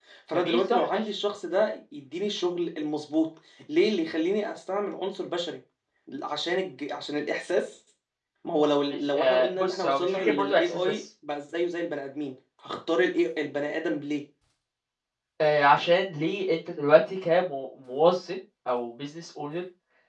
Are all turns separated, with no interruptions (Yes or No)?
No